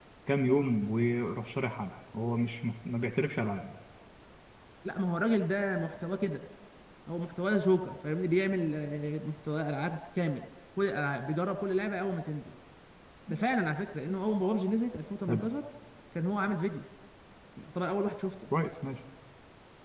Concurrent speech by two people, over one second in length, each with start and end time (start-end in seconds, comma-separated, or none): none